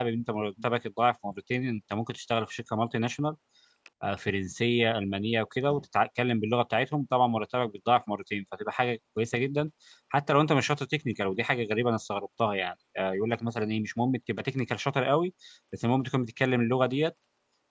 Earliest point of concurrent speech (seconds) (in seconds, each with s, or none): none